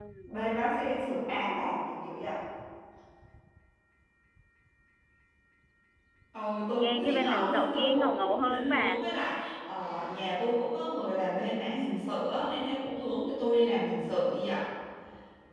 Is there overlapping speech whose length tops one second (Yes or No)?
Yes